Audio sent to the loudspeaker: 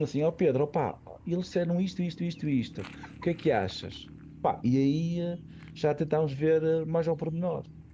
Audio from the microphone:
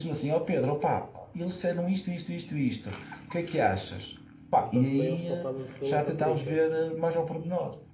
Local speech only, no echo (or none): Portanto, para eles pode estar muito calor para tripas.